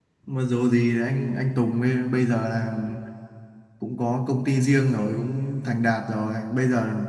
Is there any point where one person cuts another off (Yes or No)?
No